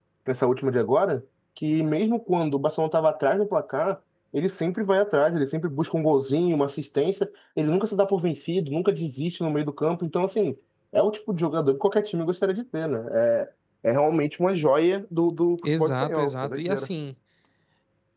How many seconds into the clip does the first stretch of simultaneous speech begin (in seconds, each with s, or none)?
15.6 s